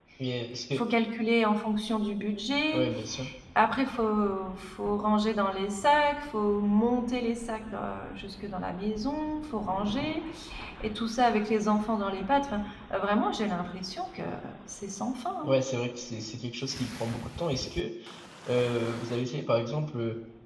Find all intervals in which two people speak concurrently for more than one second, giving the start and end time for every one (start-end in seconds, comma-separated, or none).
none